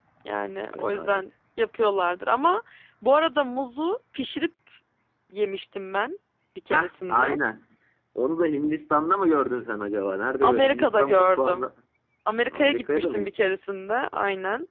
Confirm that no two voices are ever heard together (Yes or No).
No